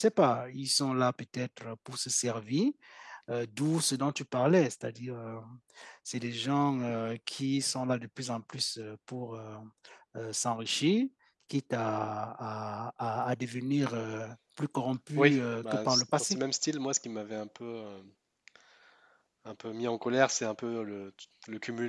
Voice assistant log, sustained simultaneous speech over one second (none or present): present